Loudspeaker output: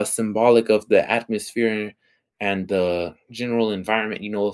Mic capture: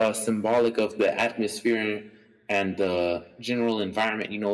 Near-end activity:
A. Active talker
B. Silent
B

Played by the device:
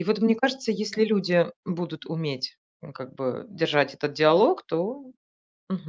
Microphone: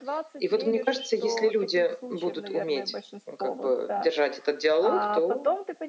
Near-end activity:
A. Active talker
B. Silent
A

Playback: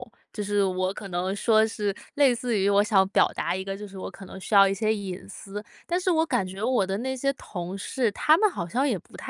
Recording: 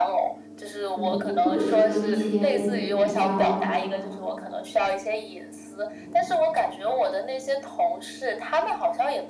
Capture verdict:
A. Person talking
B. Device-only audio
A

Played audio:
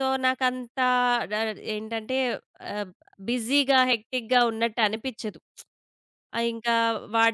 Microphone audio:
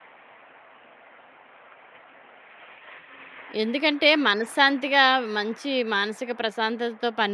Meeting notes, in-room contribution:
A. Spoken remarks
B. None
A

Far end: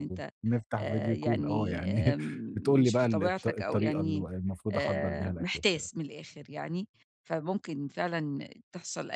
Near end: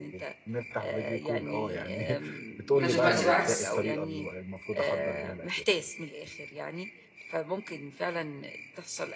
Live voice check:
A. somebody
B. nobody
A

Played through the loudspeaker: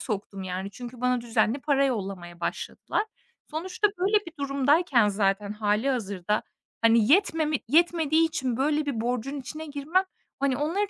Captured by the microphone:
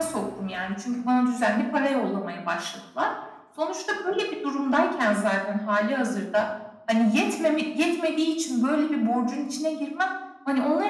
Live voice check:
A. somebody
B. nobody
B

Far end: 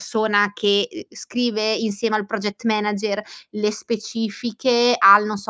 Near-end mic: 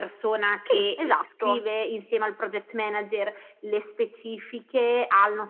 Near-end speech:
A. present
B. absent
A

